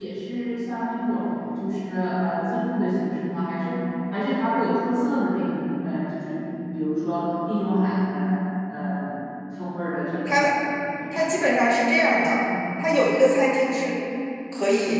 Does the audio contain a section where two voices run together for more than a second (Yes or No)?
No